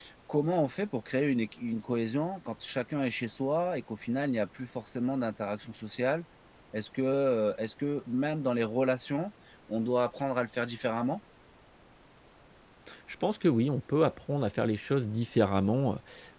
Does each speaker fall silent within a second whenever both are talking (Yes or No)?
Yes